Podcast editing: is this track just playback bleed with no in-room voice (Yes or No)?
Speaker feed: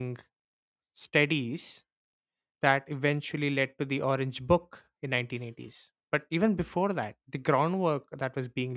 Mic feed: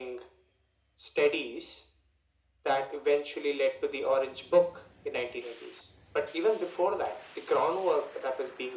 Yes